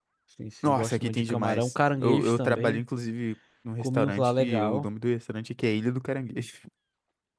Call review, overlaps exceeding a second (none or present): present